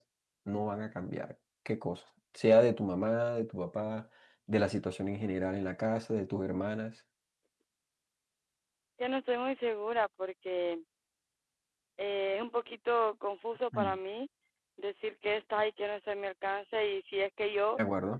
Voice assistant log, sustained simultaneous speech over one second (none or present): none